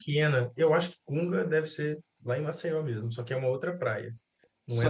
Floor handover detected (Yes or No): Yes